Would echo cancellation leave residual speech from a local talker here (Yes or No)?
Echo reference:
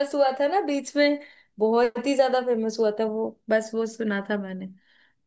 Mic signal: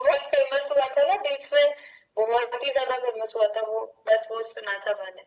No